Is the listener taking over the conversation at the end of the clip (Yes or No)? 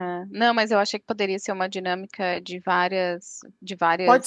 Yes